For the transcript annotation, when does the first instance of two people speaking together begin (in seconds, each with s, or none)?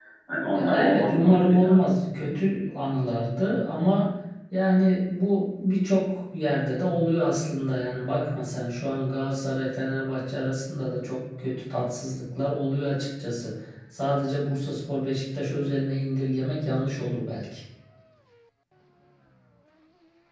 0.5 s